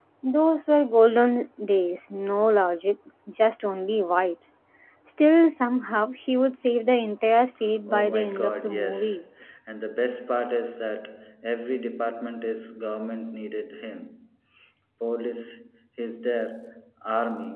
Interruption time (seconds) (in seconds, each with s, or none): 7.9 s